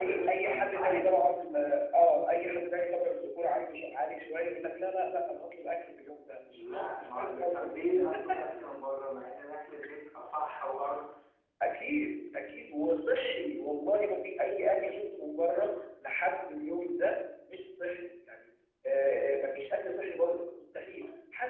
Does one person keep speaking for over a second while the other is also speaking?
Yes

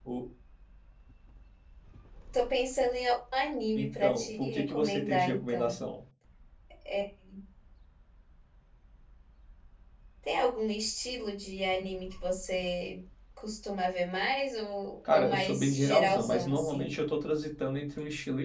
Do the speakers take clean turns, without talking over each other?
No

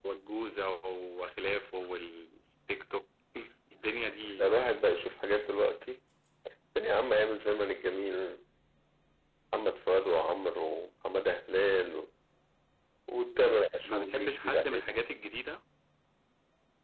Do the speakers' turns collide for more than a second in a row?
Yes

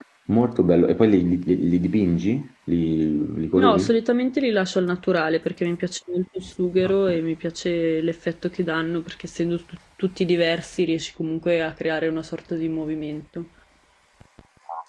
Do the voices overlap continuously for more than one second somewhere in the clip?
No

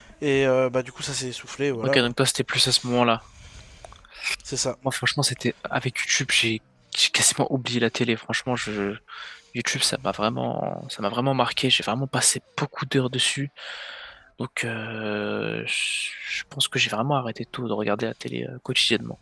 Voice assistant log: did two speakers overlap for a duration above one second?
No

